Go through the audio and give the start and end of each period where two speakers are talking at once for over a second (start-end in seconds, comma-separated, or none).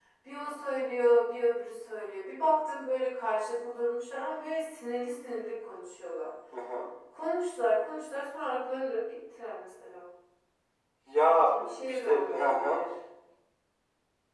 11.5-12.8